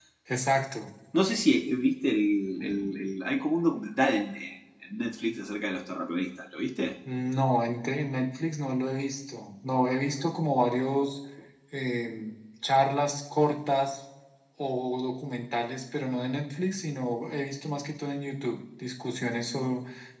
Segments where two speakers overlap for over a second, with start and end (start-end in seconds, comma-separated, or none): none